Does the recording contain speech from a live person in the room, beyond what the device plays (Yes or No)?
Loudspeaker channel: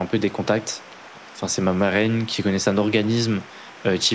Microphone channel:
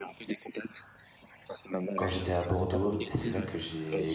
Yes